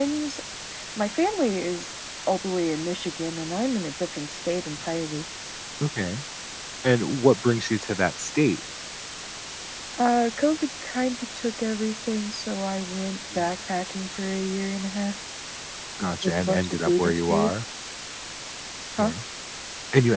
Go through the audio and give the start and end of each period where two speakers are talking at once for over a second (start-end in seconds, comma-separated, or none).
16.2-17.5